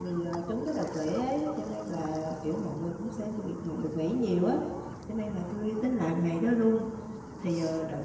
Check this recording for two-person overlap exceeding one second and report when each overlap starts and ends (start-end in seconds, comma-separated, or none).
none